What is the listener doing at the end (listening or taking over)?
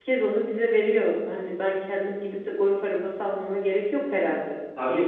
taking over